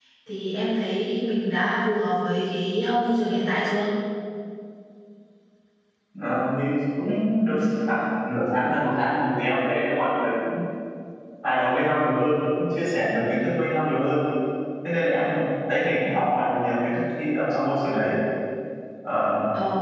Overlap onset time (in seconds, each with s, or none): none